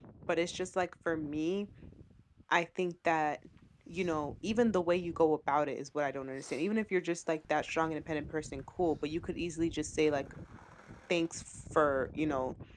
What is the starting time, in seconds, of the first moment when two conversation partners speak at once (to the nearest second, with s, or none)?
none